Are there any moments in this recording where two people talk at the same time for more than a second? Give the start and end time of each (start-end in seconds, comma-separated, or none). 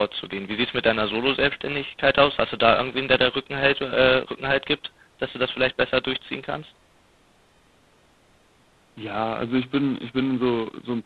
none